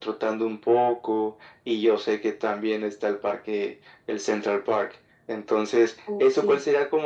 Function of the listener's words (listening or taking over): listening